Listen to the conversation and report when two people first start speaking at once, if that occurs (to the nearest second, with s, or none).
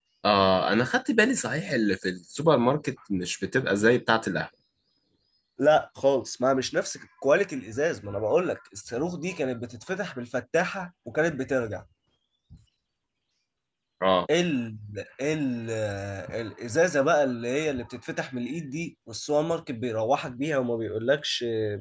none